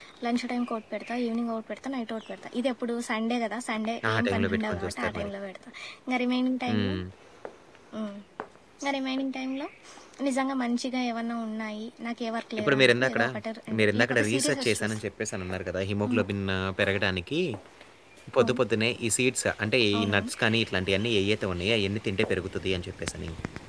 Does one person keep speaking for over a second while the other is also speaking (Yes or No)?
Yes